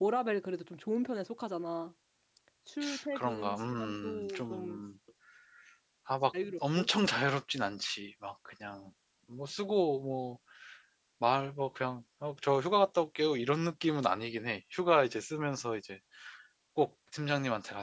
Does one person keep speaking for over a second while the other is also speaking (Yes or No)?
Yes